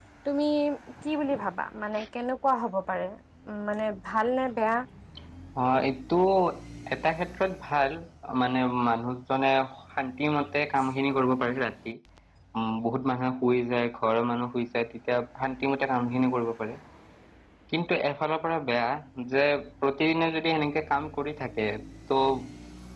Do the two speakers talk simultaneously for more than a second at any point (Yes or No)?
No